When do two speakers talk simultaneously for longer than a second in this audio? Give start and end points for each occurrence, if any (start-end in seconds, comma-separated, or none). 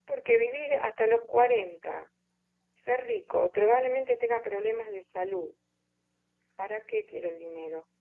none